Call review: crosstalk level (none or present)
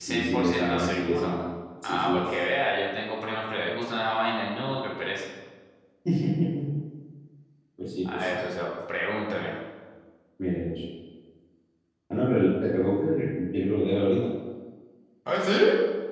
present